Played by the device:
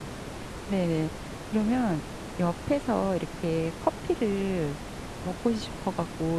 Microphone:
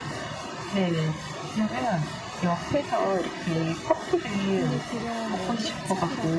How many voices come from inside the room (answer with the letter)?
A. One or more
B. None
A